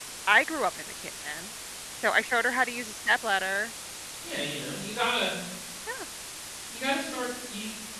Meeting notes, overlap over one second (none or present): none